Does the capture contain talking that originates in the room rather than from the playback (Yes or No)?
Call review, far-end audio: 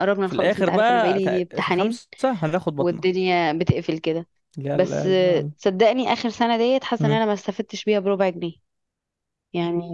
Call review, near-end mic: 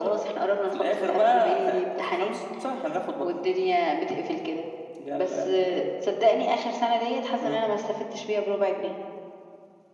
No